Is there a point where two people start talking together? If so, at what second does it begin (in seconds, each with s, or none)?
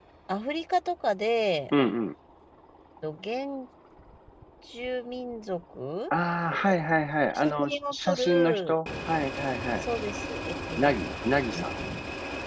7.3 s